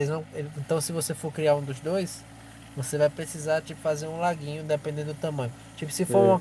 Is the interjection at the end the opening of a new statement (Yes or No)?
No